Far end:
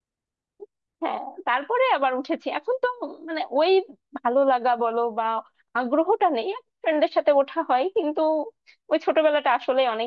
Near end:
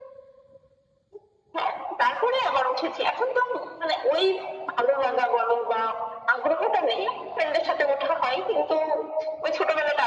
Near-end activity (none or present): none